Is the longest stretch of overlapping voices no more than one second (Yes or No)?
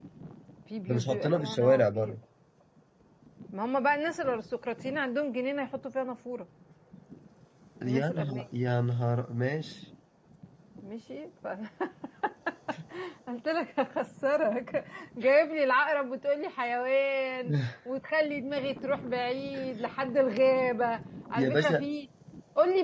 No